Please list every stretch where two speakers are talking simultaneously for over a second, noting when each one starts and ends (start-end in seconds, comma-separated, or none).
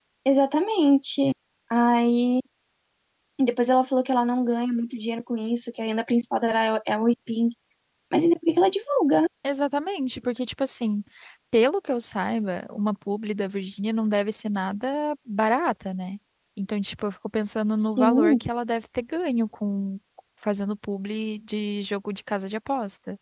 none